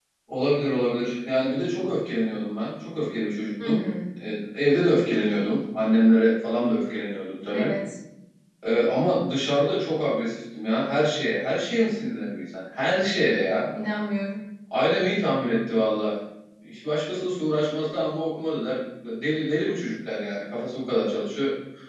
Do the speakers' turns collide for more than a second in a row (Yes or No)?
No